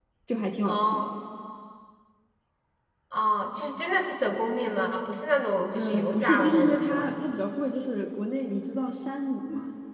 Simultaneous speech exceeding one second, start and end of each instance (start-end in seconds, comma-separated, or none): 5.7-7.1